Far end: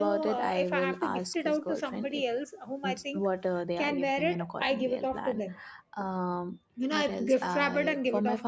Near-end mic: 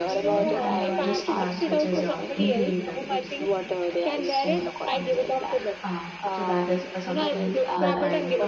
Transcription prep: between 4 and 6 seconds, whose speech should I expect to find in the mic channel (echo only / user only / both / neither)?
both